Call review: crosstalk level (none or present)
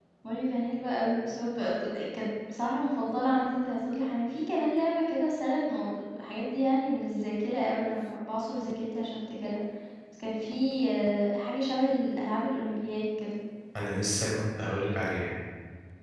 none